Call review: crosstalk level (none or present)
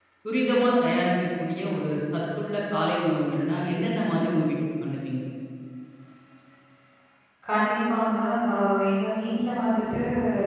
none